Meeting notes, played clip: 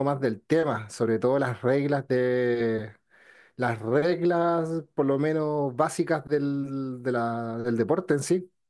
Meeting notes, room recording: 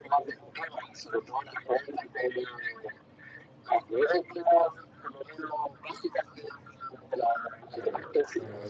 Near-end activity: present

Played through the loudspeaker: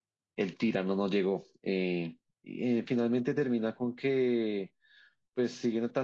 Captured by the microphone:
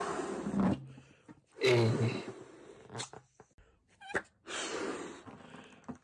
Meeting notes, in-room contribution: present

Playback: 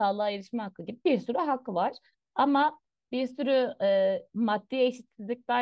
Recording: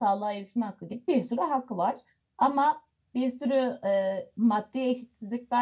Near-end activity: none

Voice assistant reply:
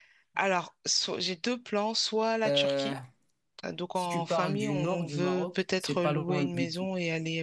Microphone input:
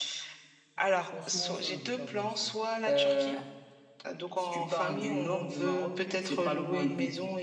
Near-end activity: present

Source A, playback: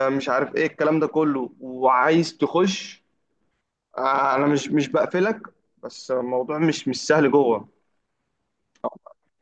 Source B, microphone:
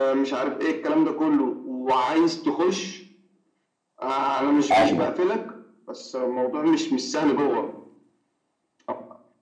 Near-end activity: present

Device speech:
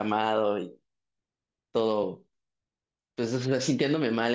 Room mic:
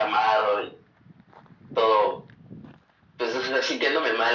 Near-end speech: none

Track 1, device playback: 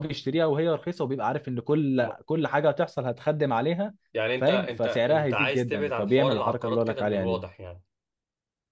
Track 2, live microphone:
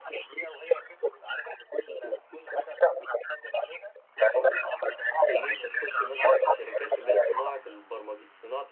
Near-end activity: present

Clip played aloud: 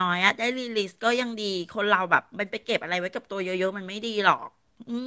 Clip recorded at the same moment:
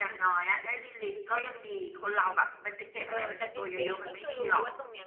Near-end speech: present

